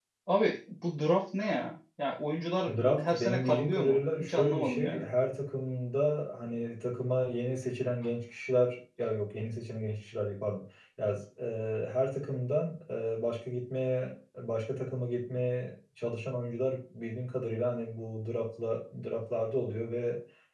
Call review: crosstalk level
present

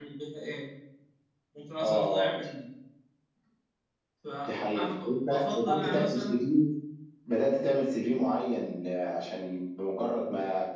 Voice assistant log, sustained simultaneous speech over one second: present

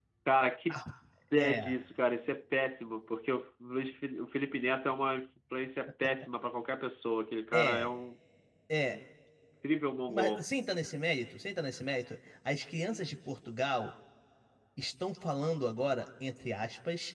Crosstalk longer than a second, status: none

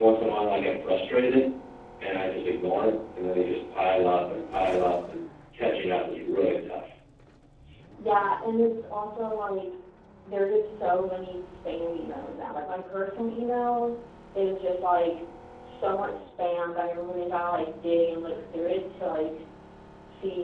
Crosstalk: none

